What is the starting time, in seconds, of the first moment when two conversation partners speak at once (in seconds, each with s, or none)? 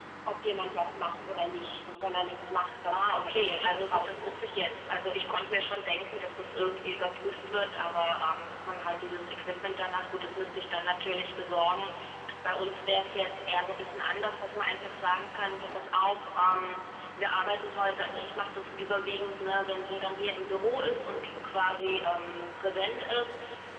2.9 s